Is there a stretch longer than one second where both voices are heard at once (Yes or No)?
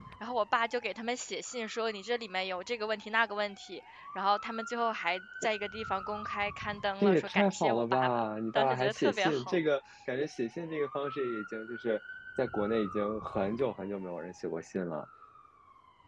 Yes